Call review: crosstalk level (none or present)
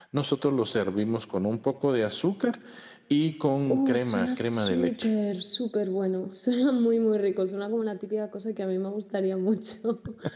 present